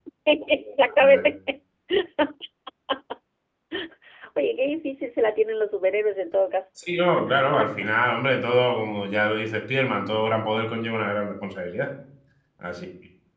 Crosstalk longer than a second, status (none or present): none